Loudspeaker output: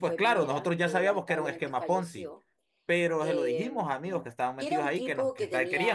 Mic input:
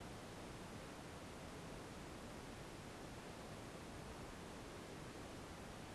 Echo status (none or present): none